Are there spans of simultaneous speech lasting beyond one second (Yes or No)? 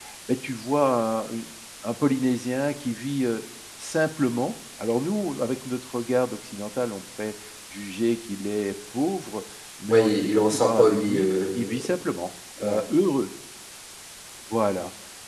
Yes